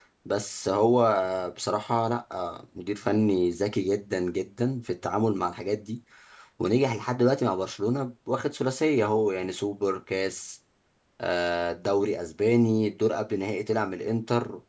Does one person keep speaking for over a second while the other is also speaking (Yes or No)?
No